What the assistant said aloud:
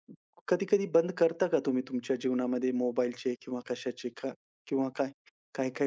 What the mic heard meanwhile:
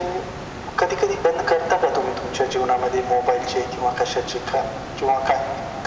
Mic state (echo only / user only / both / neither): echo only